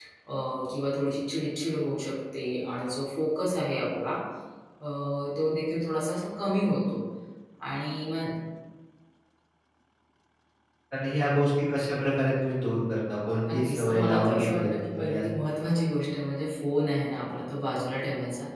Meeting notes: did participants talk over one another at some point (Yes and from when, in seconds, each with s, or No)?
Yes, from 13.4 s